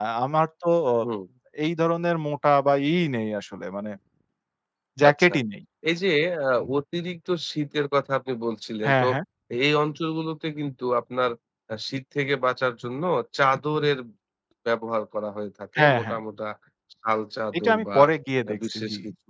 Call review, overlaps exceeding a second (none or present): none